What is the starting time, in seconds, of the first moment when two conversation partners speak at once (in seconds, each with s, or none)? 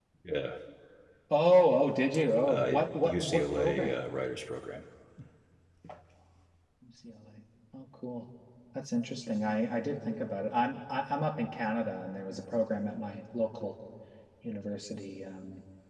2.5 s